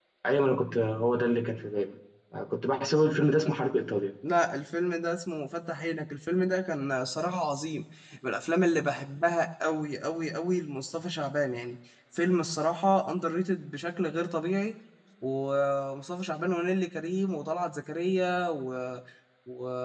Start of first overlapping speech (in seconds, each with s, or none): none